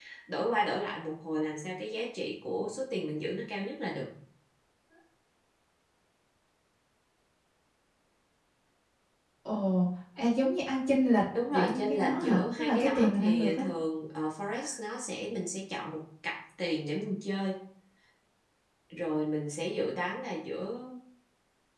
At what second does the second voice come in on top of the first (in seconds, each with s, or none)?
11.3 s